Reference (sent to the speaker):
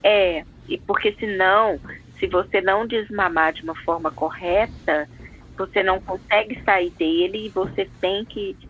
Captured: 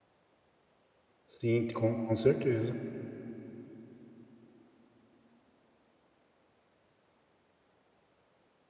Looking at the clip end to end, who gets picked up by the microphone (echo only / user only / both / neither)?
user only